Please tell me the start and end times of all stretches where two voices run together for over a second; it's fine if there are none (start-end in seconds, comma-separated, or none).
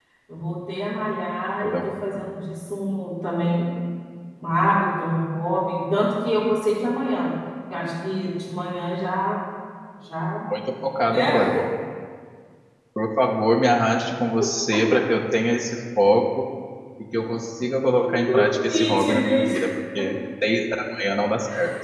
18.3-19.5